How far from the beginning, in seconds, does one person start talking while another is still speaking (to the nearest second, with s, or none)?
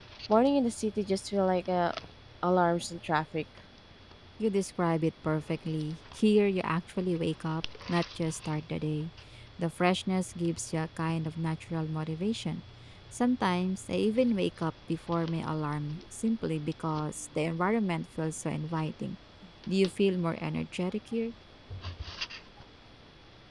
none